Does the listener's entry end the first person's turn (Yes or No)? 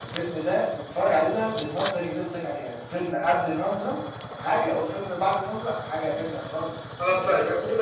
Yes